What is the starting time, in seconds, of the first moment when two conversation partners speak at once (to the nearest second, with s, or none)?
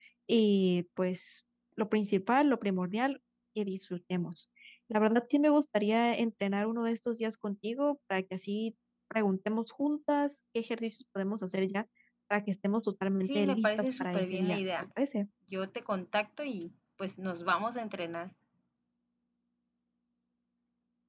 13 s